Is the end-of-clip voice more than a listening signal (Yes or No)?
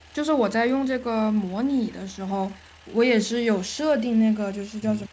No